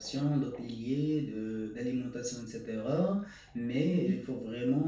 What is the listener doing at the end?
listening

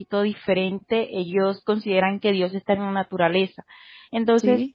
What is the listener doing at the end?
listening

